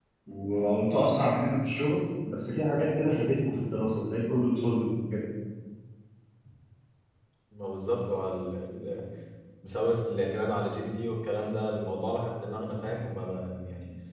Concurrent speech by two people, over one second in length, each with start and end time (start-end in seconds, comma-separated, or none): none